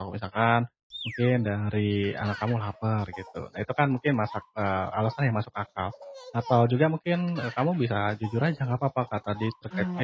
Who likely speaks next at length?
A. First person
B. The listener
A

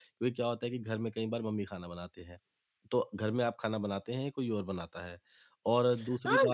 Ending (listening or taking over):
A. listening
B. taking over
B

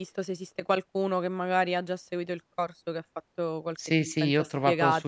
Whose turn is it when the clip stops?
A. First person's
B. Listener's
B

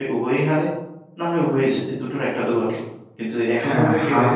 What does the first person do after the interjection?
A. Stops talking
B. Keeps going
A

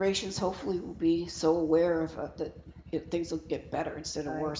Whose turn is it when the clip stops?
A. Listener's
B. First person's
A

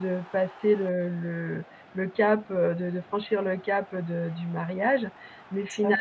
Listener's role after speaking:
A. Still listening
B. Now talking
A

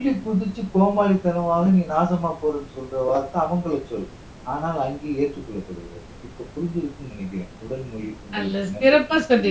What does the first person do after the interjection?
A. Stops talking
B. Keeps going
A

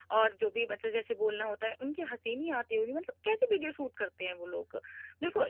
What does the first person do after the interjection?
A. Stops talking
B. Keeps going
A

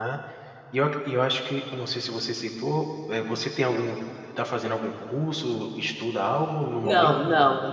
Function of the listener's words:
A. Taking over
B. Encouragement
A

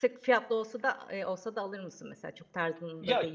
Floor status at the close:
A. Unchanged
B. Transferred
B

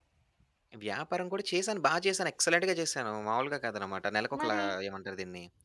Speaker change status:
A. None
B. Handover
A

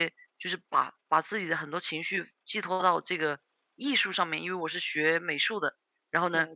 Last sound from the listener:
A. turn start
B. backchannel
B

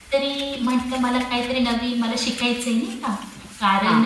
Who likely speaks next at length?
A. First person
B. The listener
A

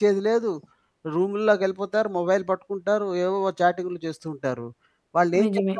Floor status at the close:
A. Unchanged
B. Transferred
A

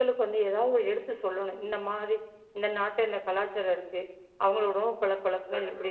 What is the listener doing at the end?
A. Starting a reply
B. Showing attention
B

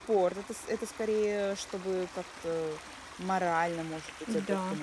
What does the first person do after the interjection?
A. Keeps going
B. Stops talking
B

